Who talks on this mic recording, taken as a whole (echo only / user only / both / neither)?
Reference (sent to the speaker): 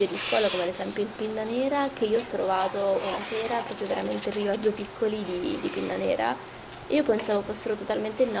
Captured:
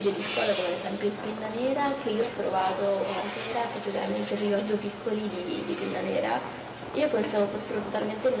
echo only